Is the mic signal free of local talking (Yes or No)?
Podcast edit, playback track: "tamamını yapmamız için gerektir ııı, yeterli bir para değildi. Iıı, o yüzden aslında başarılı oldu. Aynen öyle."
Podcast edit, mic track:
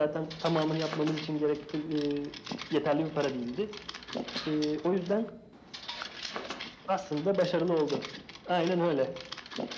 Yes